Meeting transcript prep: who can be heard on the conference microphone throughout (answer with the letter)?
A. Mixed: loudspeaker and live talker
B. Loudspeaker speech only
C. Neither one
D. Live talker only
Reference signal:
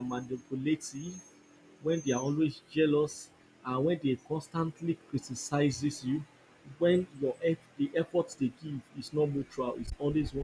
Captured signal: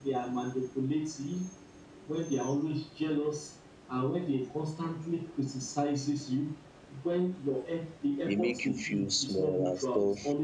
A